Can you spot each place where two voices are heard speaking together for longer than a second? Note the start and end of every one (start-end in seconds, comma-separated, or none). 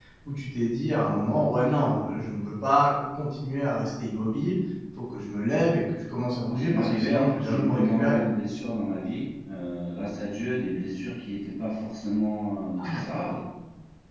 6.4-8.2